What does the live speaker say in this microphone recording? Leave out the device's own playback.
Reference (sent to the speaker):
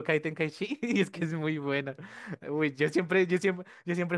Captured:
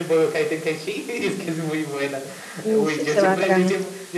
Uf, se va atacando.

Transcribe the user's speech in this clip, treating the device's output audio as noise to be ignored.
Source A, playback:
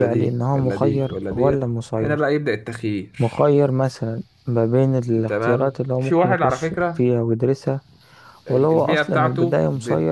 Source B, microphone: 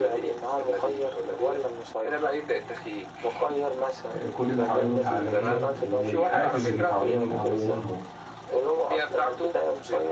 آه، كل اللي حواليه متعلمين والحافز اللي حواليه من أبوه وأمه

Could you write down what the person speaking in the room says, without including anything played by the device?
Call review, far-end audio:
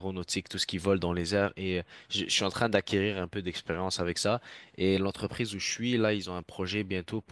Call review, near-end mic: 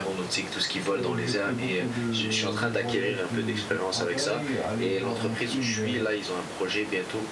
Et je fais beaucoup de, de voyages de, de travail, aller voir en Chine le-

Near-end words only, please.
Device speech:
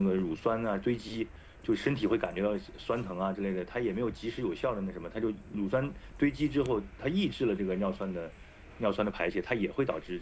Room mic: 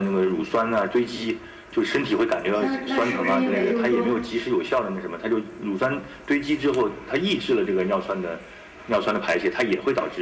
好像是那是不是因为就是说，

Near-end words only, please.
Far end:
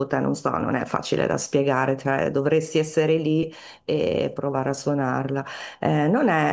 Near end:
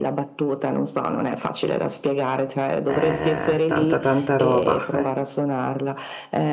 eh, tanta tanta roba.

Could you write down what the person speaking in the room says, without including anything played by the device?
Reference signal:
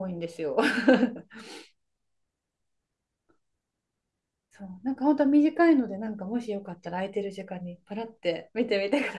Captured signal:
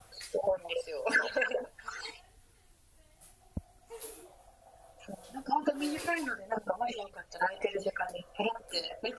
none

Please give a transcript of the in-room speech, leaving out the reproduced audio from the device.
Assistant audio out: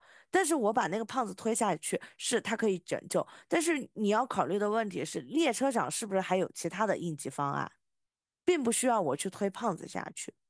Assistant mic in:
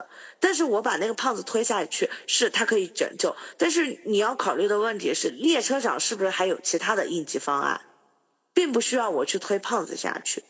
none

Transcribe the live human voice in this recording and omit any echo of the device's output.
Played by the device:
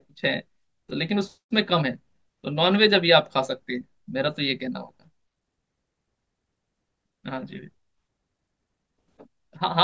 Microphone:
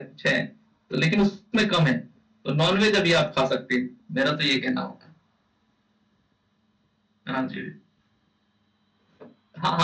none

